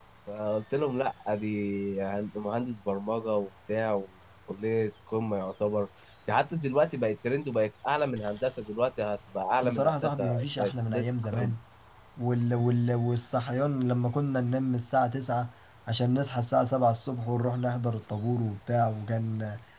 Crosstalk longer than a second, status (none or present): present